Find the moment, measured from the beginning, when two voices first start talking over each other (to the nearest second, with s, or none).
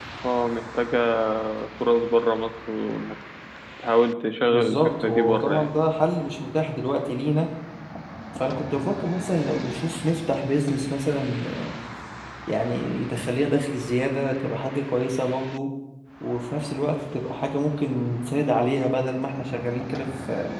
4 s